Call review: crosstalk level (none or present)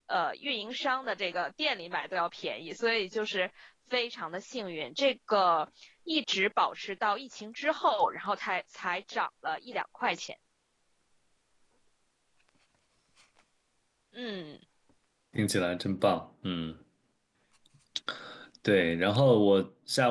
none